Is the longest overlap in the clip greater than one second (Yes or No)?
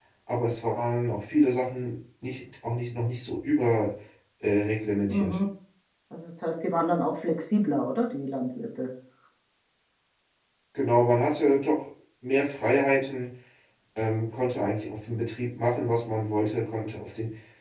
No